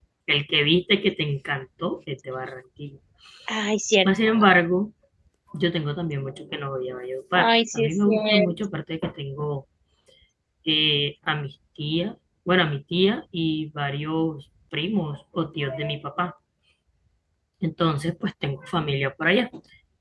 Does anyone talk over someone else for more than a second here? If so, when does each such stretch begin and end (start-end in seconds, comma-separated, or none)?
7.3-8.5